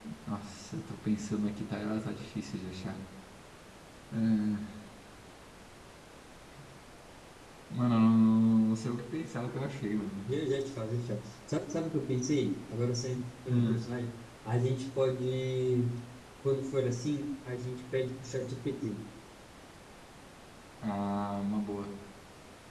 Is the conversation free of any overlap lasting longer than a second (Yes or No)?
Yes